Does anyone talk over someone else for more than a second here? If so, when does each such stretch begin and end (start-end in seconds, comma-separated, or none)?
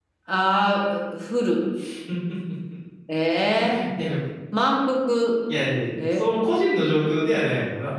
none